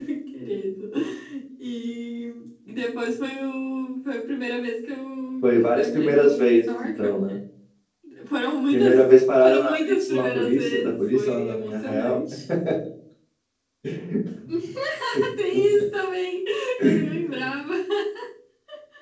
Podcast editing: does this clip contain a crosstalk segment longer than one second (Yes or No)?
Yes